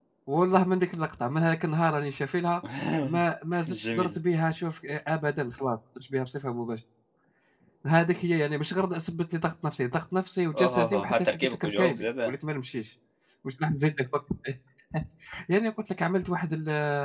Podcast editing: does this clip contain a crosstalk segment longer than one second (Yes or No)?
Yes